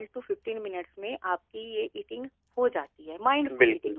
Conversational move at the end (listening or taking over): taking over